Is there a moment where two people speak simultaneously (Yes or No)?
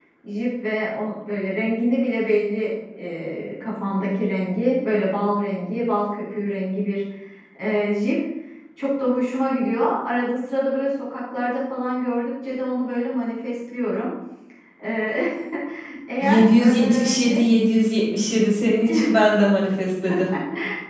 Yes